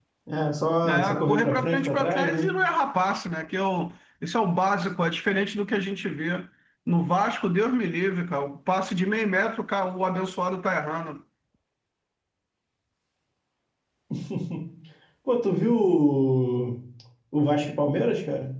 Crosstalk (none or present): present